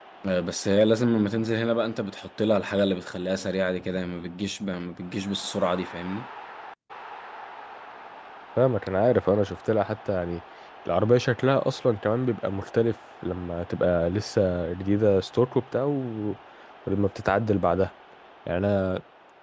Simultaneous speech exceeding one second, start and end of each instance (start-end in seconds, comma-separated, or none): none